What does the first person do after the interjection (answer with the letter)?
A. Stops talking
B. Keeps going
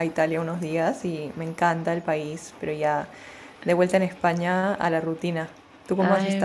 A